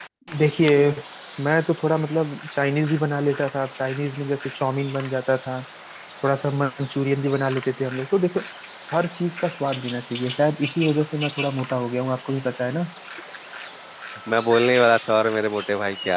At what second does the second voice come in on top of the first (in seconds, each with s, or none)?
none